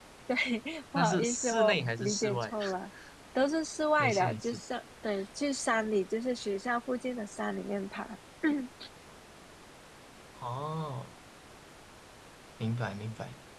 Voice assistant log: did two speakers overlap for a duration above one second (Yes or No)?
Yes